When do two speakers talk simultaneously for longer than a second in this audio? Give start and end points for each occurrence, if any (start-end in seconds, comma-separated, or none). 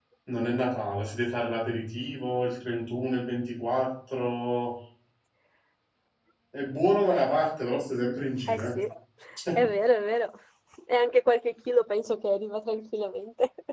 none